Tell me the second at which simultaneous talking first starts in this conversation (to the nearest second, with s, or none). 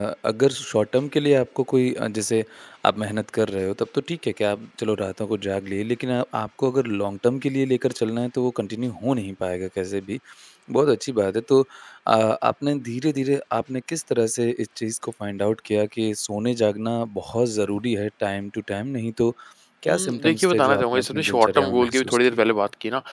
20 s